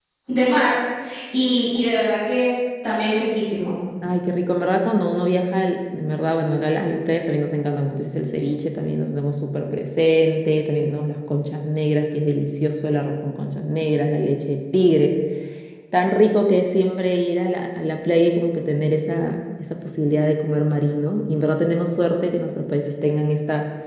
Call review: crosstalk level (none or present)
none